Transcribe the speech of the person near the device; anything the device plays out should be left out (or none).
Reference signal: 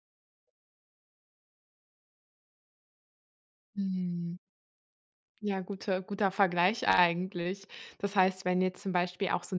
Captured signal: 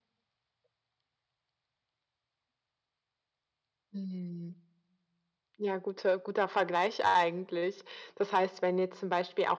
none